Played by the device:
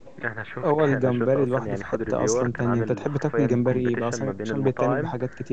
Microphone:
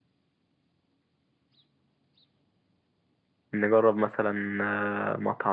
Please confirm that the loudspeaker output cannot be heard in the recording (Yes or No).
Yes